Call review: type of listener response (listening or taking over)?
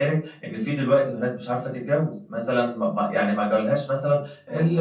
listening